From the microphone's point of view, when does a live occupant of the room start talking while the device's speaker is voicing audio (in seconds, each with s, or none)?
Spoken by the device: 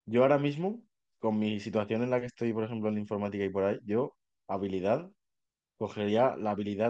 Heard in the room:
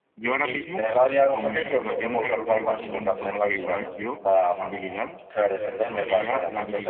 0.4 s